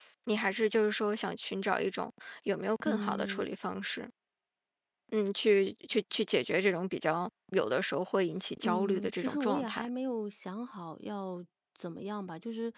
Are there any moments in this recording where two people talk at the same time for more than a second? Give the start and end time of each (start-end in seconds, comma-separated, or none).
8.6-9.9